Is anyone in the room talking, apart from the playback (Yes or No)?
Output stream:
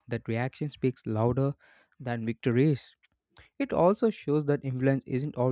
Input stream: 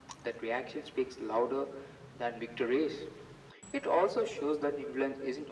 No